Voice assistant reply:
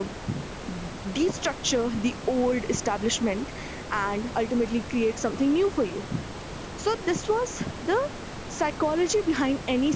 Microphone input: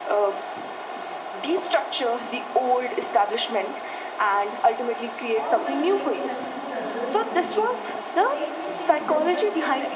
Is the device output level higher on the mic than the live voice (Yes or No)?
Yes